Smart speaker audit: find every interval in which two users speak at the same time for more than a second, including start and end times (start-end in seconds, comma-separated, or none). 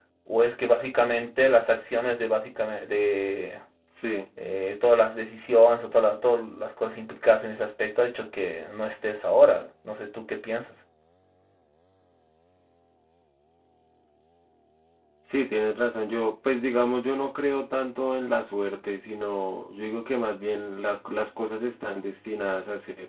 none